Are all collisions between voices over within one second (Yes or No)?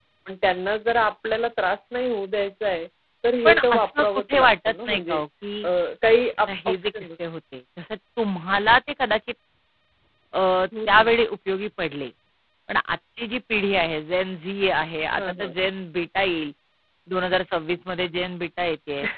No